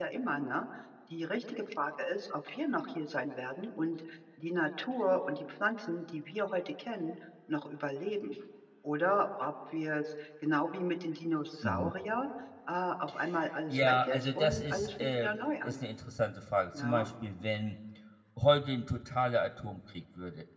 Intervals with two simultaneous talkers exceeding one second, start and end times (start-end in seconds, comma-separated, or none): 13.7-15.8